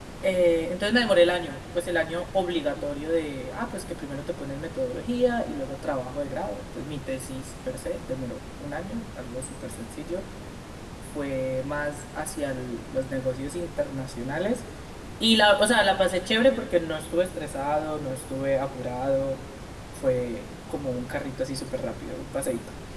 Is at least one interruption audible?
No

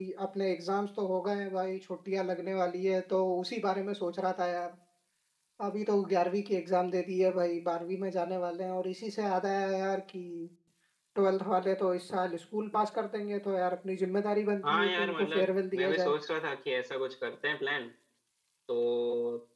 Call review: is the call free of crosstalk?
No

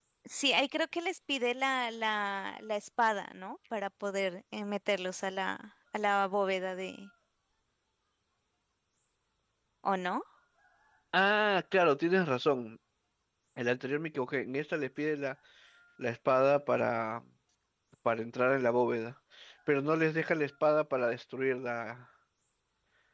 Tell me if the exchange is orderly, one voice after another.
Yes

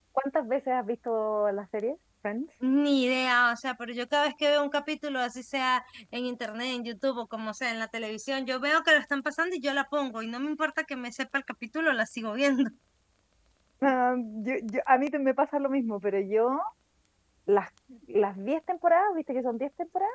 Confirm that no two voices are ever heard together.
Yes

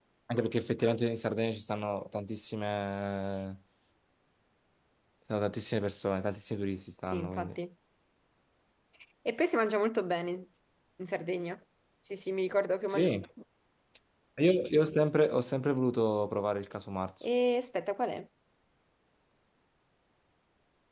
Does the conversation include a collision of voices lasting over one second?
No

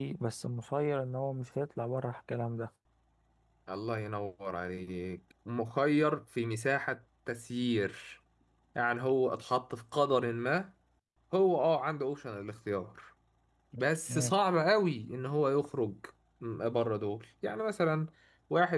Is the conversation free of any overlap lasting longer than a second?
Yes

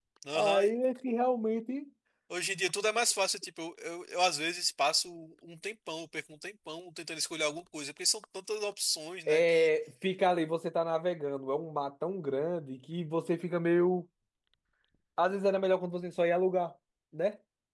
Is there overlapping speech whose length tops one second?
No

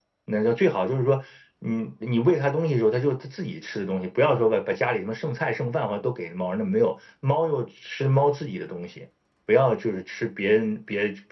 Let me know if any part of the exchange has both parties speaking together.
No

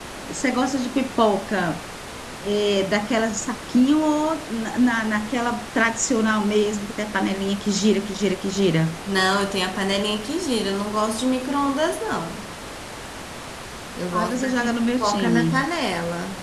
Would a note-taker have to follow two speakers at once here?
Yes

